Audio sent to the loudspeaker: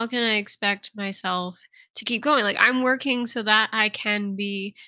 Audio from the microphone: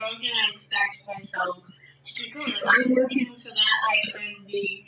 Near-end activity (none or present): none